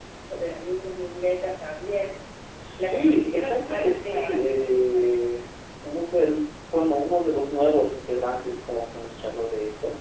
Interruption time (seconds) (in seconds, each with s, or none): 2.8 s